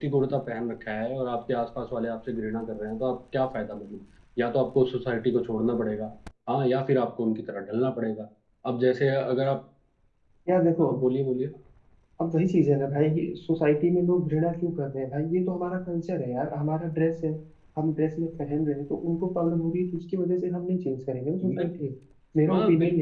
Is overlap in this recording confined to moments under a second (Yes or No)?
Yes